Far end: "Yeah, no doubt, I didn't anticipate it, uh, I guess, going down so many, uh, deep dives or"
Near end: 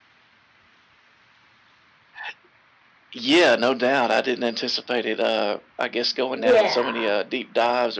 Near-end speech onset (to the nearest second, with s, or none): 6 s